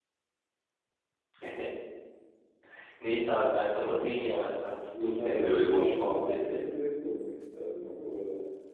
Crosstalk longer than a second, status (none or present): present